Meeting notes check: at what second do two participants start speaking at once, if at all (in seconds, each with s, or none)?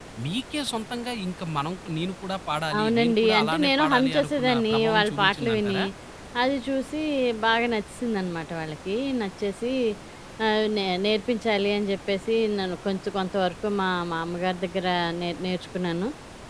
2.7 s